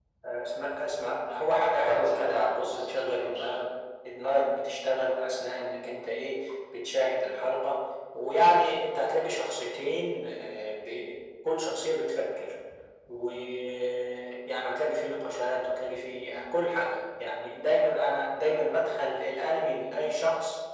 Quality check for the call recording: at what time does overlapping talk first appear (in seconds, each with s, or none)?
1.8 s